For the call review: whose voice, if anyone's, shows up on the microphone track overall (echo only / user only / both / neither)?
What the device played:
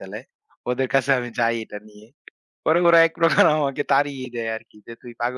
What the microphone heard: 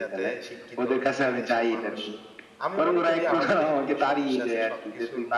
both